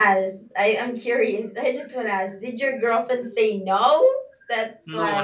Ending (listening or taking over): taking over